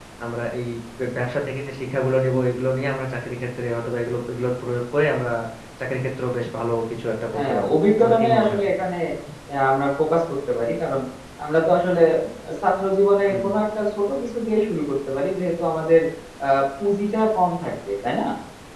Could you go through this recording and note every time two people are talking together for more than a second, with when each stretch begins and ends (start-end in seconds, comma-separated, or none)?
7.3-8.6